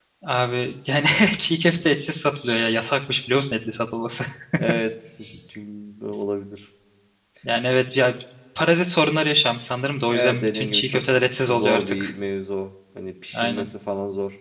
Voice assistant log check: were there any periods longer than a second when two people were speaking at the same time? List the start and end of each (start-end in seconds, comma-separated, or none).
10.1-12.1